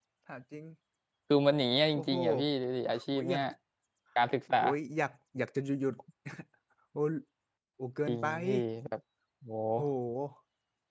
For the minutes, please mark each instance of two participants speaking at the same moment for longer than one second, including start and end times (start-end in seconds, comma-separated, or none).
none